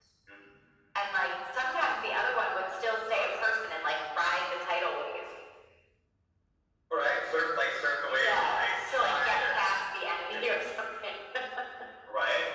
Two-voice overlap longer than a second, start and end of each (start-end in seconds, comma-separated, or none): 8.1-9.5